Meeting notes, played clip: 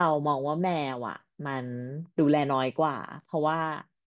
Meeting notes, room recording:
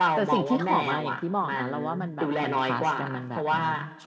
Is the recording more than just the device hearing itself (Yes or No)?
Yes